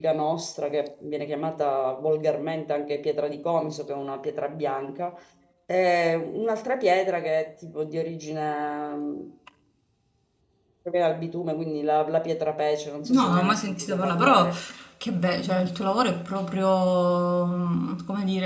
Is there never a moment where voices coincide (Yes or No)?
No